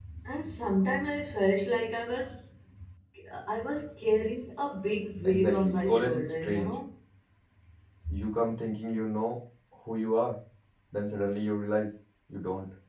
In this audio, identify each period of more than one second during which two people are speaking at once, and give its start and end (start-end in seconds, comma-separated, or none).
5.2-6.8